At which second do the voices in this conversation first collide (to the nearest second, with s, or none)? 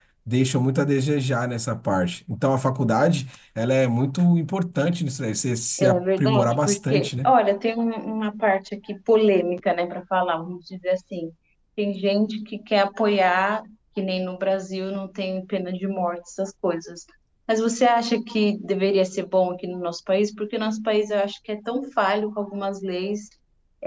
6 s